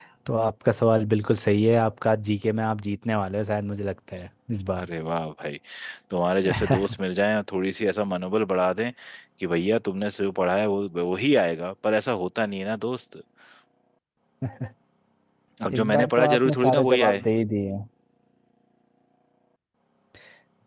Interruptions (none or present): present